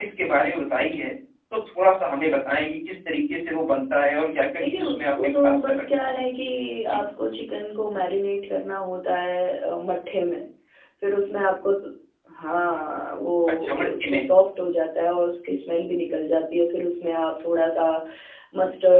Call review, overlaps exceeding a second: present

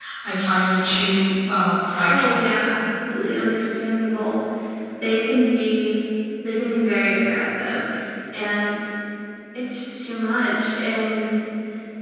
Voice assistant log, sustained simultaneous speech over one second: none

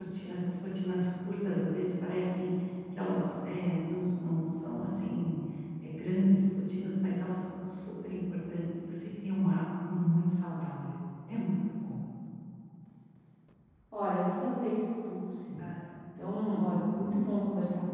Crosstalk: none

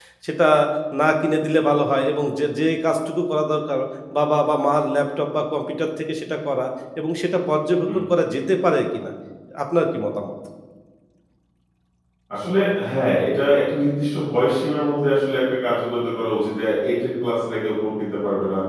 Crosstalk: none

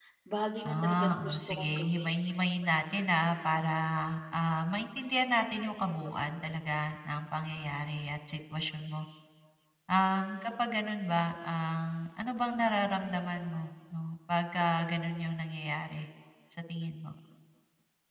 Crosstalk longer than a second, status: present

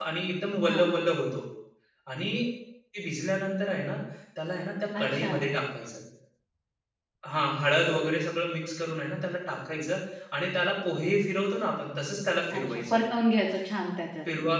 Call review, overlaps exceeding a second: none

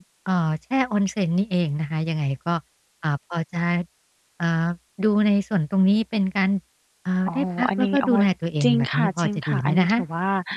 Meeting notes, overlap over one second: present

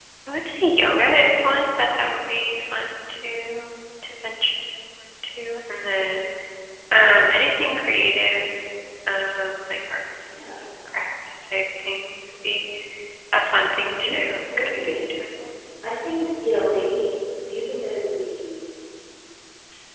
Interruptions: present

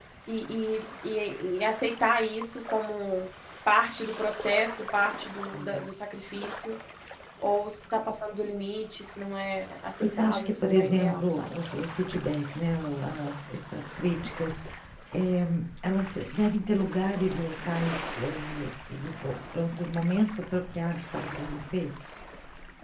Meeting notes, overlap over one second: present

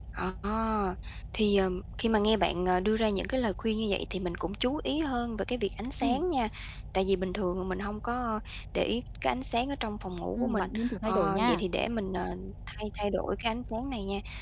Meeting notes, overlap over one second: present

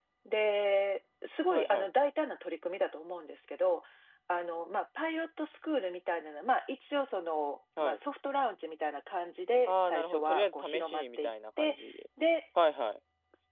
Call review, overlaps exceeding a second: present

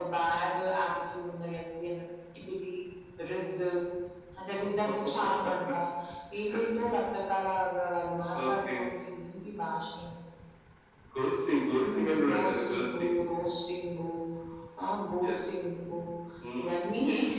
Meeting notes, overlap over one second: present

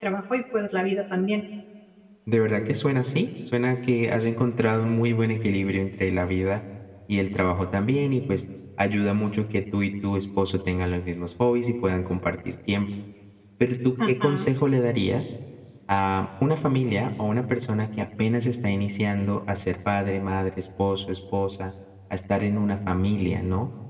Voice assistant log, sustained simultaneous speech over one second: none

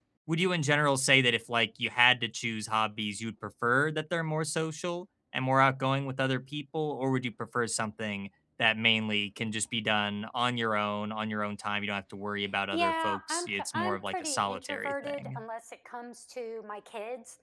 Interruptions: present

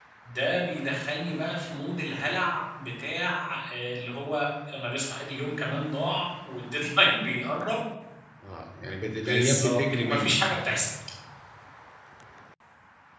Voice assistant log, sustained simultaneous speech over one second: present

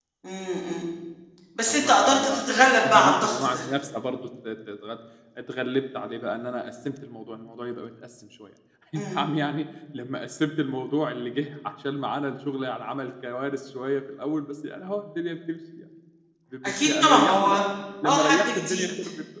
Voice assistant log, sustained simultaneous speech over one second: present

